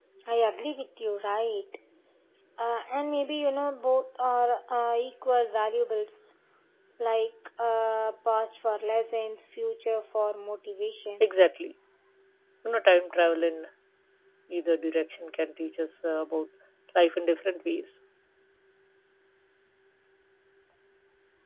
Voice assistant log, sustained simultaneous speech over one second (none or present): none